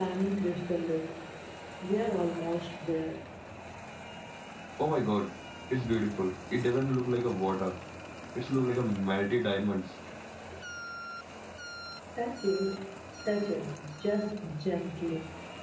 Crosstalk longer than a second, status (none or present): none